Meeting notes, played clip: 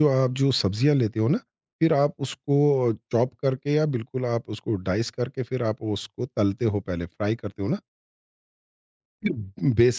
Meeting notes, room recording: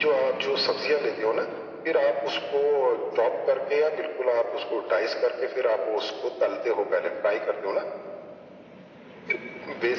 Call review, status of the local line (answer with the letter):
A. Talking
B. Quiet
B